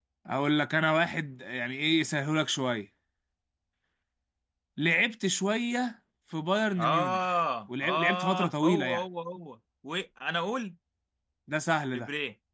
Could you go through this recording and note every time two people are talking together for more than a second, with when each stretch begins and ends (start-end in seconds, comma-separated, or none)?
7.8-9.0